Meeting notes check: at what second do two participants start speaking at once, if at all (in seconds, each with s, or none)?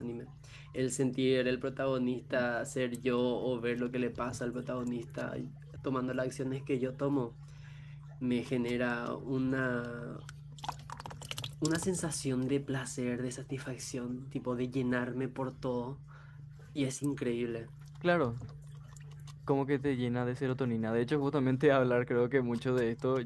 none